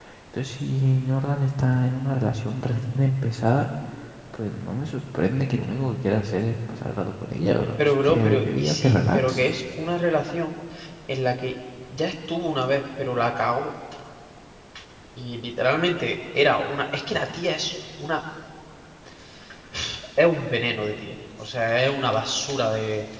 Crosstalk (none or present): present